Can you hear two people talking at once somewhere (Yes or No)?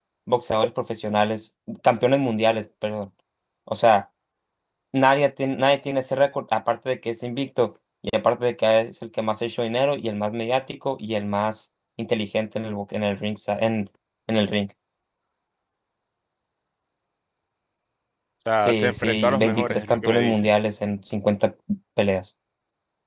Yes